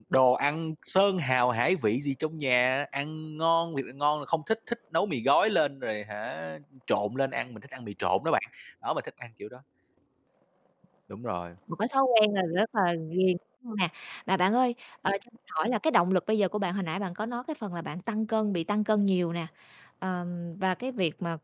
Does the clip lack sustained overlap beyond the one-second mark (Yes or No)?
Yes